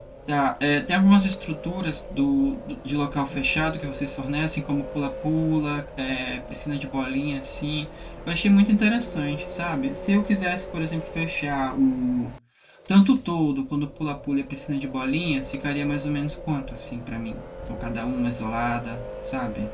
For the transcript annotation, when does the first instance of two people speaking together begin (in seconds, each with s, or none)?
none